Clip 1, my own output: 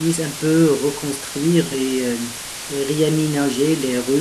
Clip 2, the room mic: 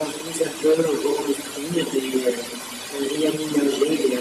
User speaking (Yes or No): No